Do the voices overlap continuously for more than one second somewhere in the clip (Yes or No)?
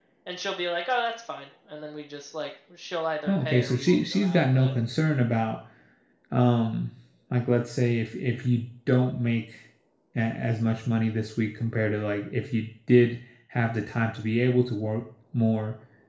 Yes